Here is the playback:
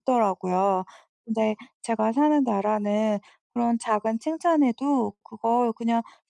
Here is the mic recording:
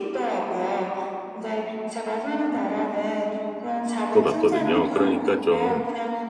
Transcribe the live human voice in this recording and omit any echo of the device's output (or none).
것 같거든요. 그러니까 좀